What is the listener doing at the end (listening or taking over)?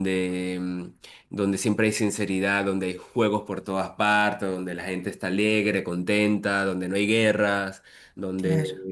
listening